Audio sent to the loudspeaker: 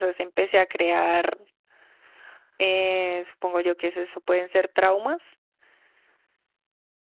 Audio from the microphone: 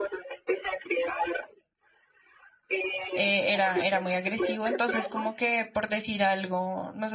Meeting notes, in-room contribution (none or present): present